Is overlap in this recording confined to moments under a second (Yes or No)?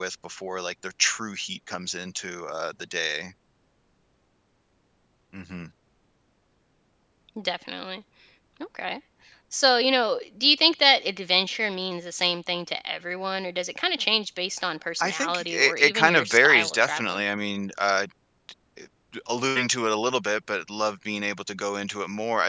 No